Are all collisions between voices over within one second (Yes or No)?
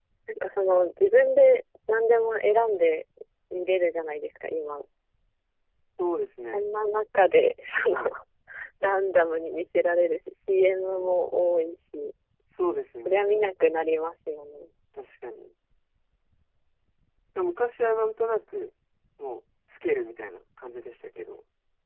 Yes